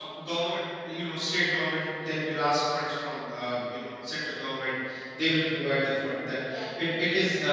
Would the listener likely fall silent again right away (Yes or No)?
Yes